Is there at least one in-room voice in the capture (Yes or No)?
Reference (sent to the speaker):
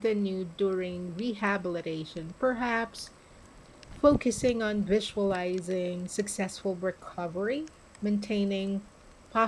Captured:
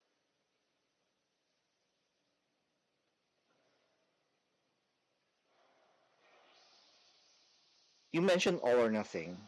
Yes